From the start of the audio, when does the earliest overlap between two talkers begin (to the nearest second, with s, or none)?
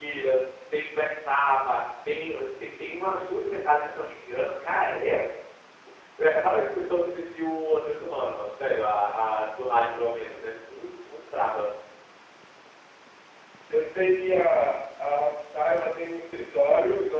none